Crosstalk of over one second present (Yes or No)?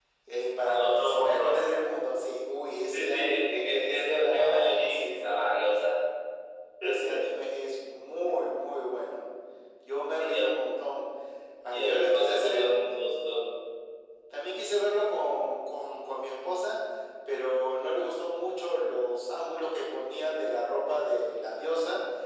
Yes